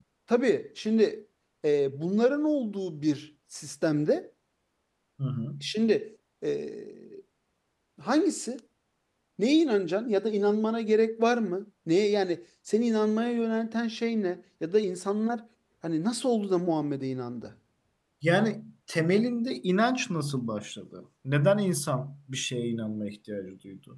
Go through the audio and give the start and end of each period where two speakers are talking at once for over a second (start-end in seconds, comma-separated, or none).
none